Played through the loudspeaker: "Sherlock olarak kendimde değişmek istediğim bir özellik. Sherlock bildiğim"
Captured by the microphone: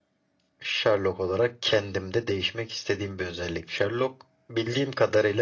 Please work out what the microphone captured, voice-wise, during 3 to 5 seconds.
echo only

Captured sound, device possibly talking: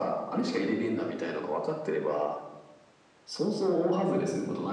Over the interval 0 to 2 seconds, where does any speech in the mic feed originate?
echo only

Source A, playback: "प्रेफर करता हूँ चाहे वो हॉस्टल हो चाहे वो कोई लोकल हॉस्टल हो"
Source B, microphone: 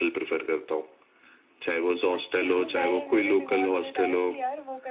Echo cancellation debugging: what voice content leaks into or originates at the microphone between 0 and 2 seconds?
echo only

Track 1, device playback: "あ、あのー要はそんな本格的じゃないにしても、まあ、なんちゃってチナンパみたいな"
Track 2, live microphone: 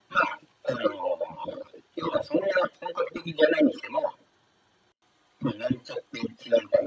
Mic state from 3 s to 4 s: echo only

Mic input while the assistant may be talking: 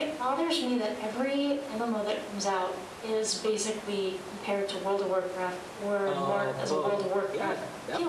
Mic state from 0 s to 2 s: echo only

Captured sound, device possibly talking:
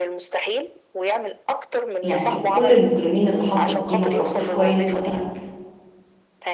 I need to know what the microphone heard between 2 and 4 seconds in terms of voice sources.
both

